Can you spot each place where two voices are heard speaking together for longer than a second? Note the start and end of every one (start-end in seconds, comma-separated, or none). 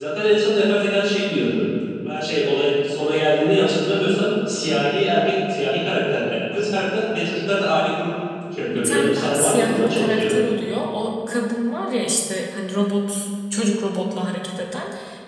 8.7-10.3